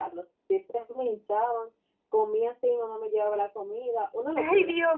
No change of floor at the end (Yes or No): No